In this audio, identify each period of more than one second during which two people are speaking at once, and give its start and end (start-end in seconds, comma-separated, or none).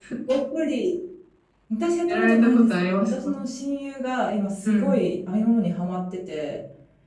2.1-3.3